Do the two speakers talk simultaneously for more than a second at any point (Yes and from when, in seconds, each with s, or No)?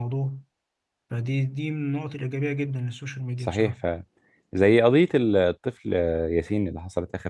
No